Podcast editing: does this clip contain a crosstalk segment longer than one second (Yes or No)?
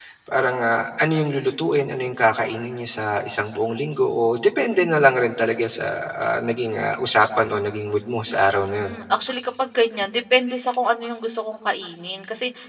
No